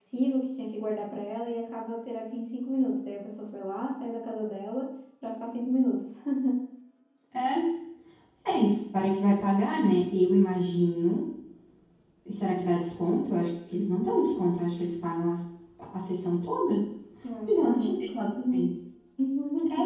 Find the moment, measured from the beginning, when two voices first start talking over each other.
17.4 s

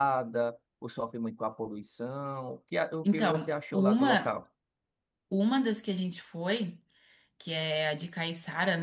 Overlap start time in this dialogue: 3.0 s

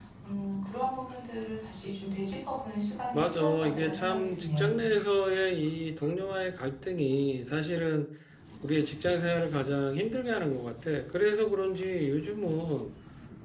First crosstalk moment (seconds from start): 3.1 s

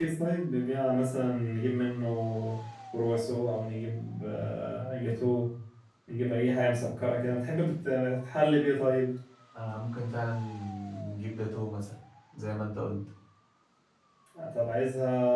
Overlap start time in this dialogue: none

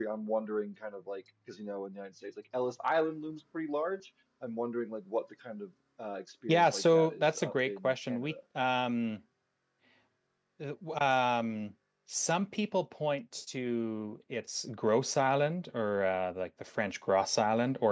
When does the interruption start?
6.5 s

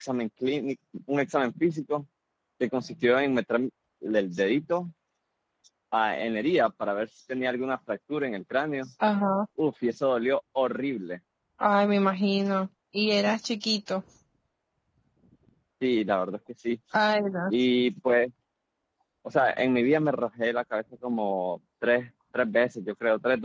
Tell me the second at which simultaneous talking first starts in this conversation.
none

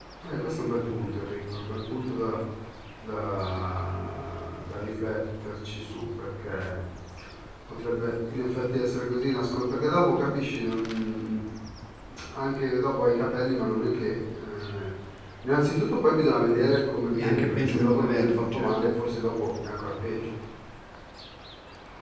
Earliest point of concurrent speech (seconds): 17.2 s

